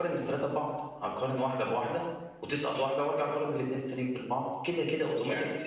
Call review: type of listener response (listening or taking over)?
listening